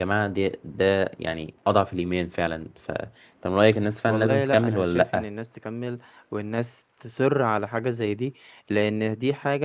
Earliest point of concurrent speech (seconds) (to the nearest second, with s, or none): 4 s